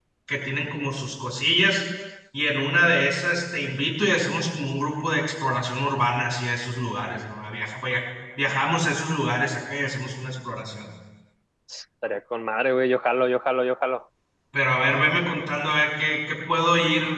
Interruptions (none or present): none